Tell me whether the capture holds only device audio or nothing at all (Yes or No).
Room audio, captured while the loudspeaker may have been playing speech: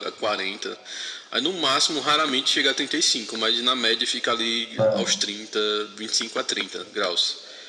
No